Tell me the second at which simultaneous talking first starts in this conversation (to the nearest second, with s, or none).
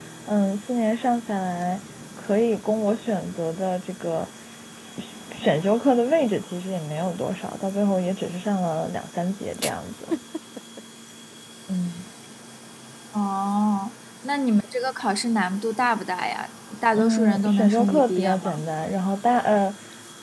17 s